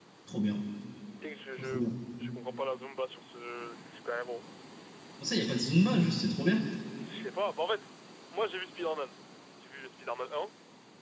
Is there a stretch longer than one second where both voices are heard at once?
No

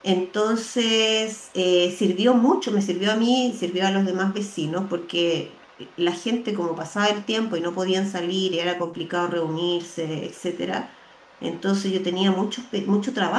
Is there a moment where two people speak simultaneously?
No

